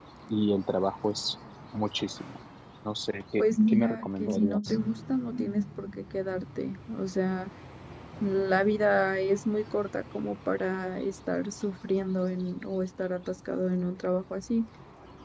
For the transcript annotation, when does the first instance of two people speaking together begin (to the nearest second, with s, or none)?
3 s